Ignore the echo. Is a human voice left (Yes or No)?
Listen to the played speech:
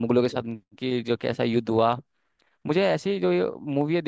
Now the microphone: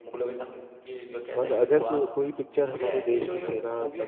Yes